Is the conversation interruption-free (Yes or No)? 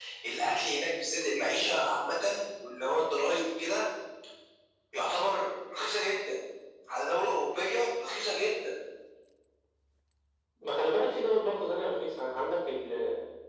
Yes